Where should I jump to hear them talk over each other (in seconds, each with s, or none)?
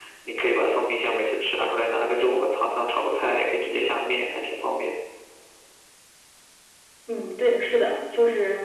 none